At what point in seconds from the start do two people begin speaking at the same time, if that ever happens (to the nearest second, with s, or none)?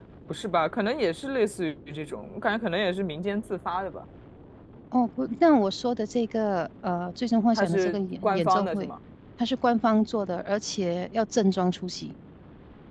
8 s